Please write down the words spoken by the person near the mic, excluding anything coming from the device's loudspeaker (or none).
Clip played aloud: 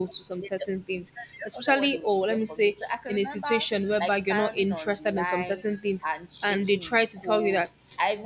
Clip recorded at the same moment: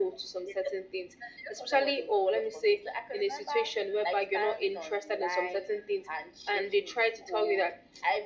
none